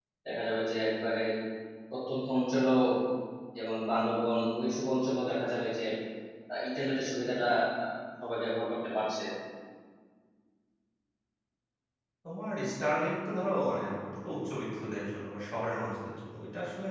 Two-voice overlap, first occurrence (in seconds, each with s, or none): none